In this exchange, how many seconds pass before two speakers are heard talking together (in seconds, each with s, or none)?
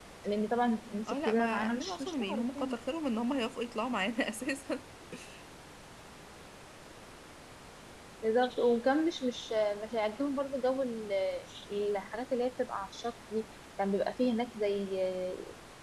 1.1 s